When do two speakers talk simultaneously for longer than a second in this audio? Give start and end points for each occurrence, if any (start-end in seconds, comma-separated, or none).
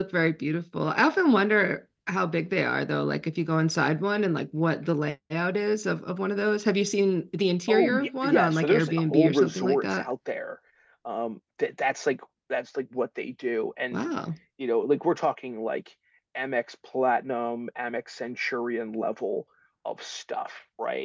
7.7-10.0